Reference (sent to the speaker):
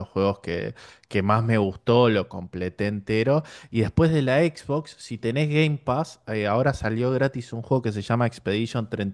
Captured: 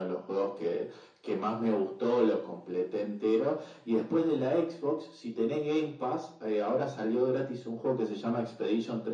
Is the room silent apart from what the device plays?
Yes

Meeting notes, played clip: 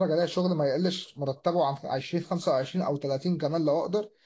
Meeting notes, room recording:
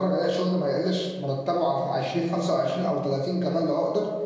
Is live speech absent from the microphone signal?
Yes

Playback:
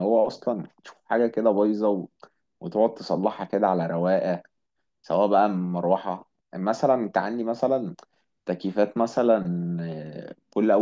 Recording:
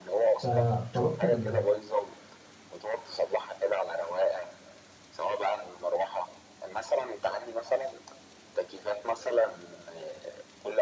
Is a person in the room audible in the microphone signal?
Yes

